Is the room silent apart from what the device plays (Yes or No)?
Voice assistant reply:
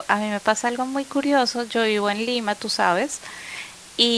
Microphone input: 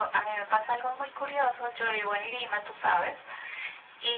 Yes